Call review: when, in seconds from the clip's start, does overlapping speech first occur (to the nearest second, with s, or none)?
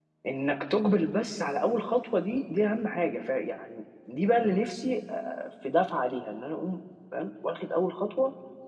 none